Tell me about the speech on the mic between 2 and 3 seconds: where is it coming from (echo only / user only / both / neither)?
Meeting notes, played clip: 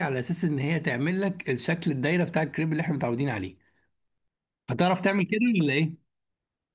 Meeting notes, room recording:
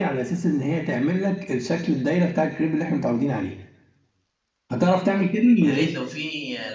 echo only